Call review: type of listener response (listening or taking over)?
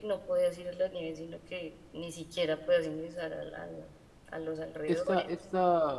taking over